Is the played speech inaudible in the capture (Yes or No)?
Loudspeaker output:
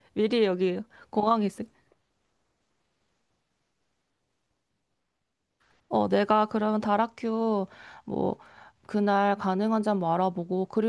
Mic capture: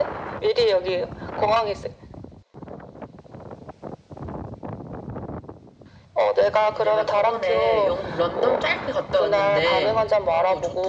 No